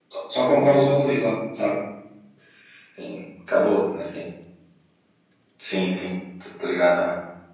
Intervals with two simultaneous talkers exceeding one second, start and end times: none

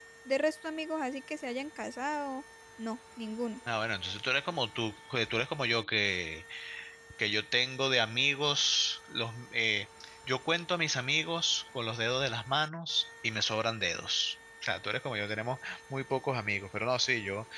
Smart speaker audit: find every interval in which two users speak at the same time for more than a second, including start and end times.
none

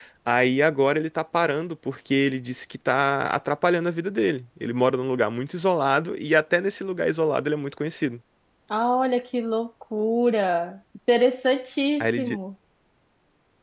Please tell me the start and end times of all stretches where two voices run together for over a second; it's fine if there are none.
none

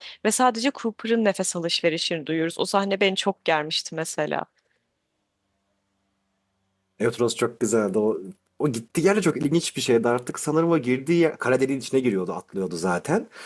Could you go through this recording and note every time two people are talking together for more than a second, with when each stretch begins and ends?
none

